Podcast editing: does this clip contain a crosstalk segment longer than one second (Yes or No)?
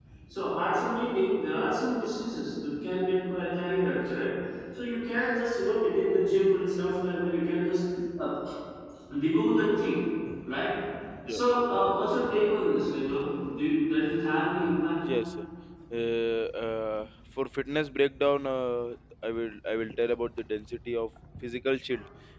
No